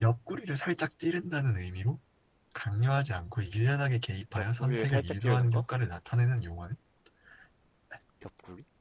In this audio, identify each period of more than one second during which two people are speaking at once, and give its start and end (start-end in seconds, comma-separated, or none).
4.3-5.6